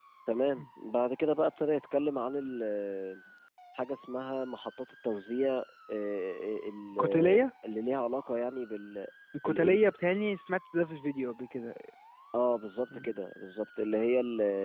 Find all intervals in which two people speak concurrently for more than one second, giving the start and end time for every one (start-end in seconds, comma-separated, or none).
none